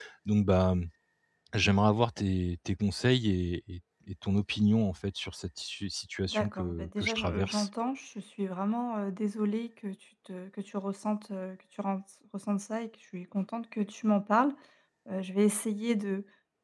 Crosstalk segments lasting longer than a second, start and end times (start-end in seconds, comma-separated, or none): 6.3-7.7